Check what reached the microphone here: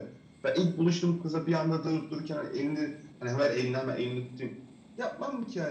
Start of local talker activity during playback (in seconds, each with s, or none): none